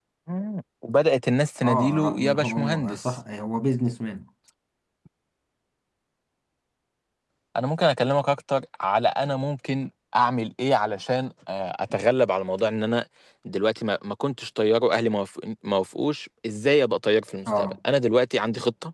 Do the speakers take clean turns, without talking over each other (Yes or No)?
No